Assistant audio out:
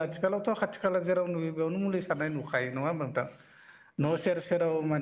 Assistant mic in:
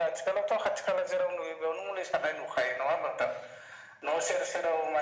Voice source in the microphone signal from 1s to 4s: echo only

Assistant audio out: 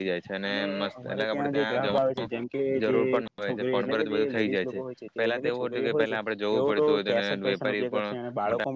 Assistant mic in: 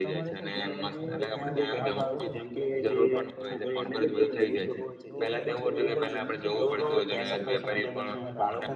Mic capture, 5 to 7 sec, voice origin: both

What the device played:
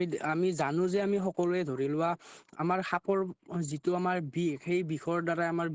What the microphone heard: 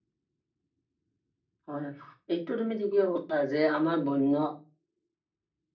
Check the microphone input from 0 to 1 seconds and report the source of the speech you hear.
neither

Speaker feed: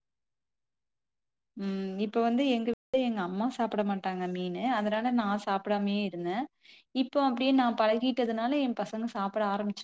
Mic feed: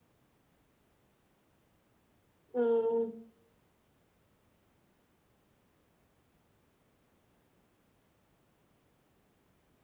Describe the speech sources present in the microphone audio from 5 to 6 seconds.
neither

